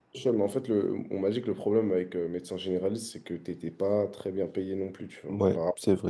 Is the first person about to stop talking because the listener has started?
Yes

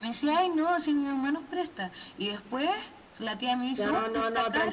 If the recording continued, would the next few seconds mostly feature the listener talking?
Yes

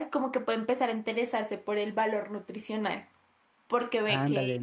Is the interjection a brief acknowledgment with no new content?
Yes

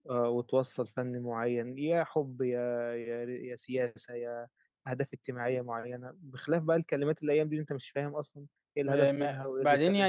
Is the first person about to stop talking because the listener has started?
Yes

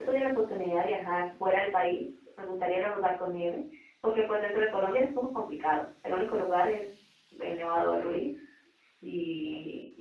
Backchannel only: Yes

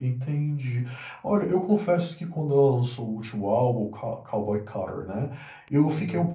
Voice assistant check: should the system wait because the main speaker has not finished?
Yes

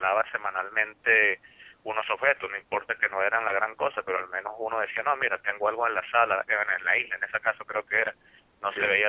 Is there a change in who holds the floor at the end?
No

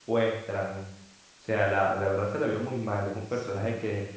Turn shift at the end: No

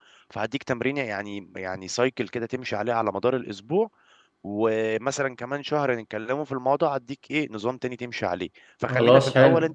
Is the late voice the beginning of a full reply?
No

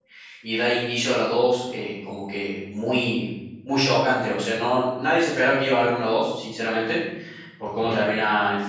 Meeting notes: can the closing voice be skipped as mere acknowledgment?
Yes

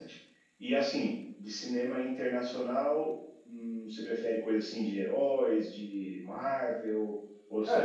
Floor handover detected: Yes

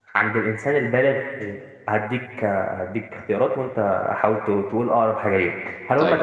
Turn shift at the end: No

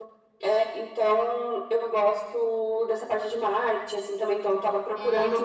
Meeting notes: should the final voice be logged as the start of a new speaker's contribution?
No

